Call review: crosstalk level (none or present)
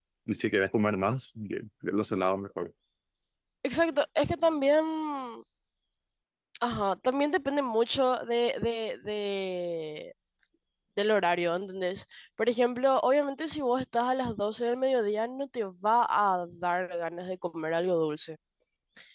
none